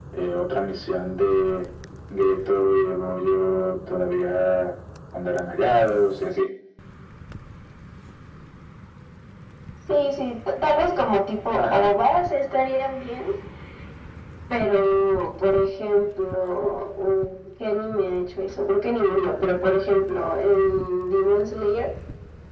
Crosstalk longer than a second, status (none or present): none